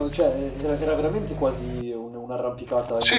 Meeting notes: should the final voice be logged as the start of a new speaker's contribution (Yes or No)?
Yes